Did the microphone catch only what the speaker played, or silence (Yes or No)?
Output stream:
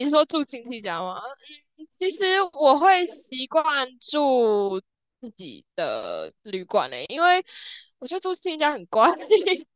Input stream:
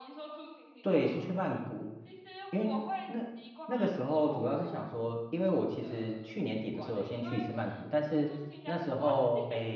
No